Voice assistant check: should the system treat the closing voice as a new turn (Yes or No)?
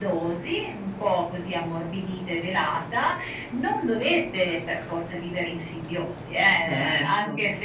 No